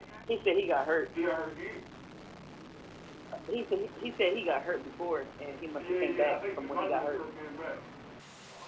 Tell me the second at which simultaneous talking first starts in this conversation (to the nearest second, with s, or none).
6 s